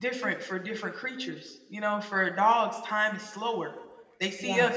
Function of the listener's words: listening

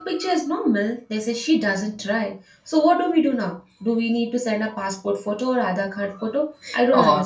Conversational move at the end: taking over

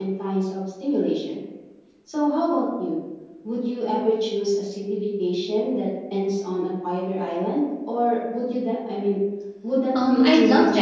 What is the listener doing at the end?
taking over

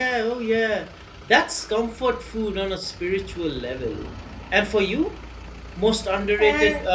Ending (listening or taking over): listening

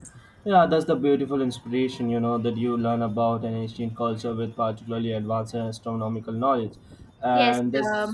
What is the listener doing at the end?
taking over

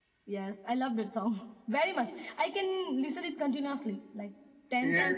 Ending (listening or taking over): taking over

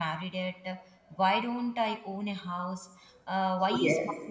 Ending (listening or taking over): listening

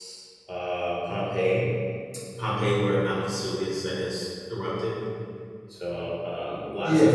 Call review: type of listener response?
listening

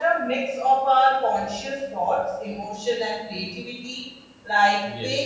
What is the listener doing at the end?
listening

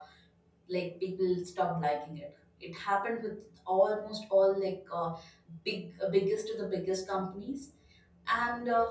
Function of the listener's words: listening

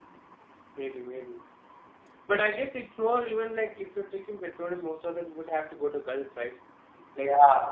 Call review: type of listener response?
listening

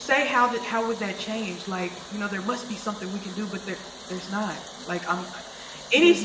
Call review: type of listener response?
listening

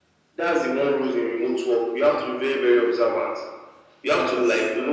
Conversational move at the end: listening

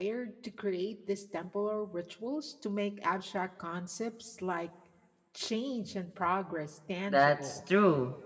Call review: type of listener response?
taking over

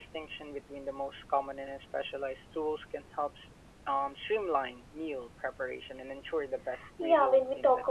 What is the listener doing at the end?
taking over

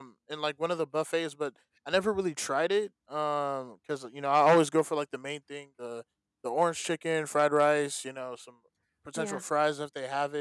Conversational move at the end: listening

